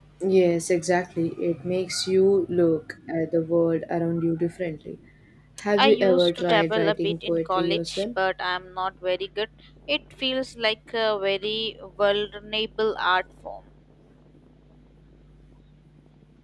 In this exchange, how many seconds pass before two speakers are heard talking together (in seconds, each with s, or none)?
5.8 s